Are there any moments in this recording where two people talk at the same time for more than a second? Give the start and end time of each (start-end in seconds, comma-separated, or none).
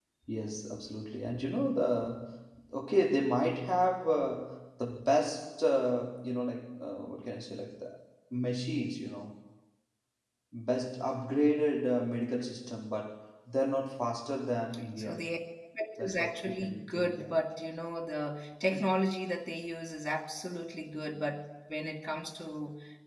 16.0-17.4